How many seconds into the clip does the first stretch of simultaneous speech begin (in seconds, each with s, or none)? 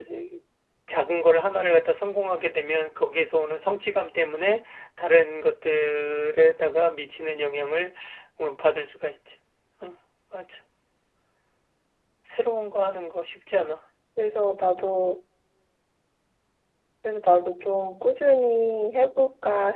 none